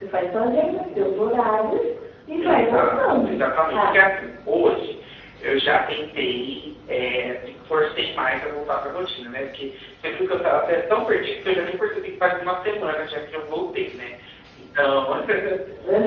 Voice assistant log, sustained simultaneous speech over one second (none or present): present